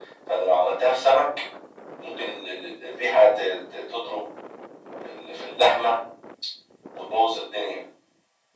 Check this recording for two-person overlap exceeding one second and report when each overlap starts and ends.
none

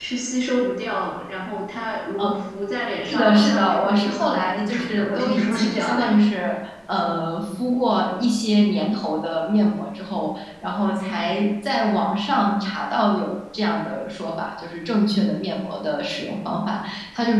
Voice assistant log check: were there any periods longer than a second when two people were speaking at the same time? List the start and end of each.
3.1-6.0

